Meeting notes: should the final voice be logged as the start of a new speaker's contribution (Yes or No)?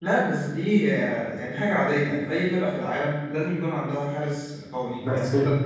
Yes